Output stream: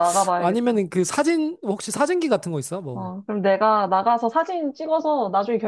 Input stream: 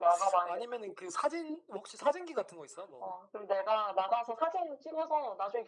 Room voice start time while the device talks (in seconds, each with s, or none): none